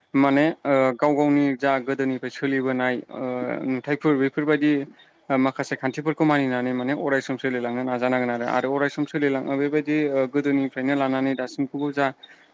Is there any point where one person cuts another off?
No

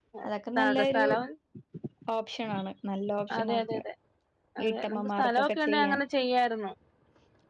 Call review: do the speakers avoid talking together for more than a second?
No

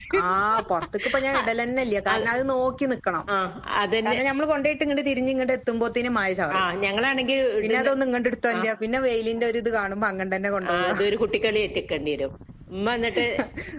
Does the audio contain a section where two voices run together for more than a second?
No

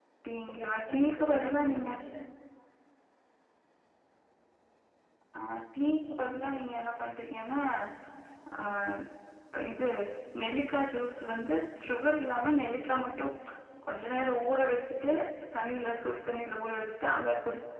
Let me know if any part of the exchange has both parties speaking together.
Yes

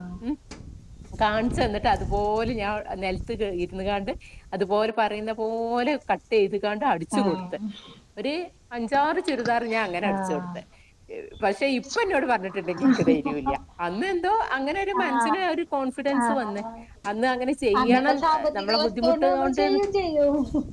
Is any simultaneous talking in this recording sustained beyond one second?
Yes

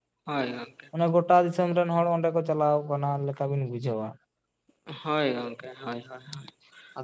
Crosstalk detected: No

